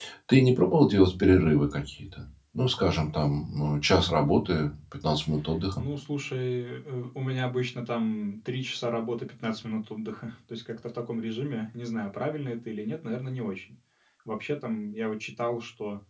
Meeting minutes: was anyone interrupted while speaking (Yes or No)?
No